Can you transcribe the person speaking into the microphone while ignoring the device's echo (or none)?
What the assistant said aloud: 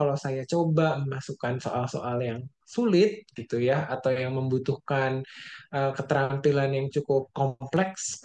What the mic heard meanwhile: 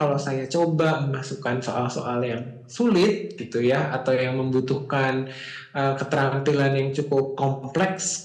none